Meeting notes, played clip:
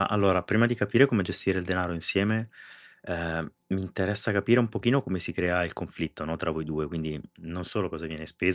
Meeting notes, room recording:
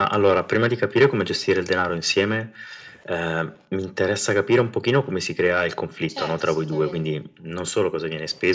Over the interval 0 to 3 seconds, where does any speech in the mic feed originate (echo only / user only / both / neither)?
echo only